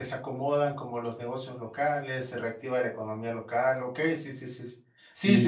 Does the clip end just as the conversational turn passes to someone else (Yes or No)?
Yes